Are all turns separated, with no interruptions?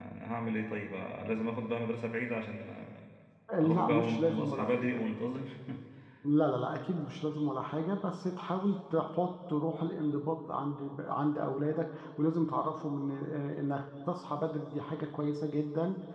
No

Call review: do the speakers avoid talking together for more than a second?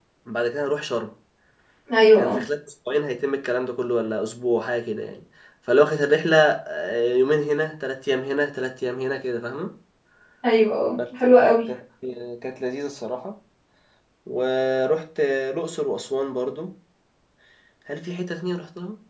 Yes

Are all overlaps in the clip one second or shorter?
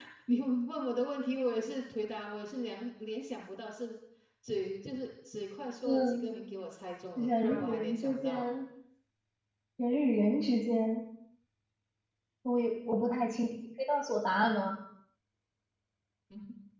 No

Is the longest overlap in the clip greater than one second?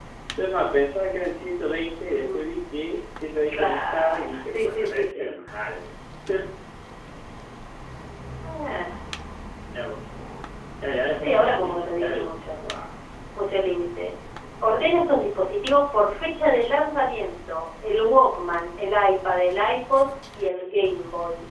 Yes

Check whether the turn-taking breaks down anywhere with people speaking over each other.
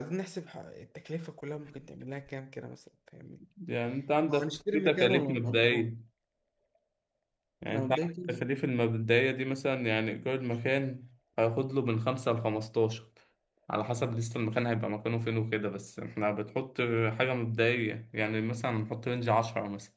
Yes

